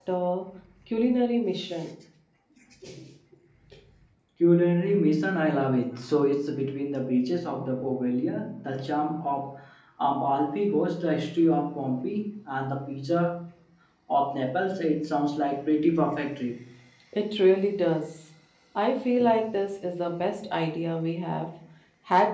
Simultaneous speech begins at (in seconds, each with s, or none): none